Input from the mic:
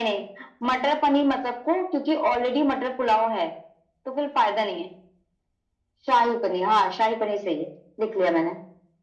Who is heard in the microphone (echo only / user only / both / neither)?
echo only